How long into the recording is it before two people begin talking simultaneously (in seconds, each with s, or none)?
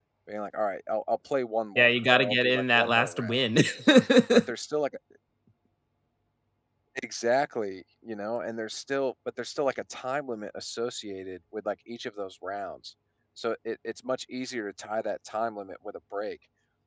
1.8 s